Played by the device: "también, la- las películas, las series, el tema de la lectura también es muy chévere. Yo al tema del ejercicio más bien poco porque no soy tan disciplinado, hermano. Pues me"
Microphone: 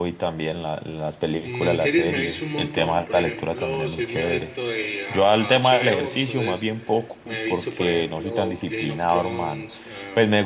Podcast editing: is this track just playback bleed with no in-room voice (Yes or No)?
No